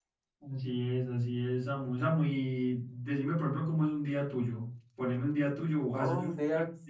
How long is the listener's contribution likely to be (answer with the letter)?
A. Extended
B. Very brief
A